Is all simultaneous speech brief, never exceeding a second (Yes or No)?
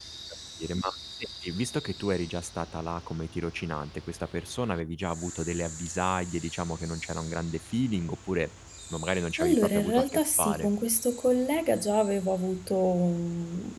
No